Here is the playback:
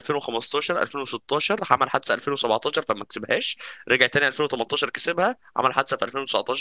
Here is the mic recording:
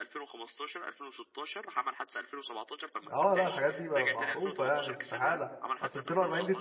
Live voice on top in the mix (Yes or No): Yes